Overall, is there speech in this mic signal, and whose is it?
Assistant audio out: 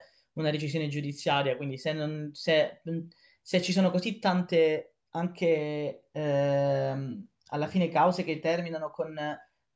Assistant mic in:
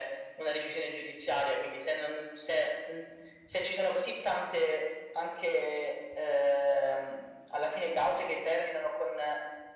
echo only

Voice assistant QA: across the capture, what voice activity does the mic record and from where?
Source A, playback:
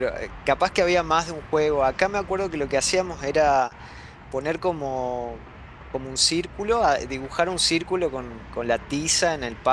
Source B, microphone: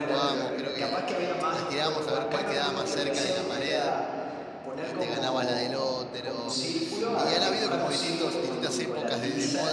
both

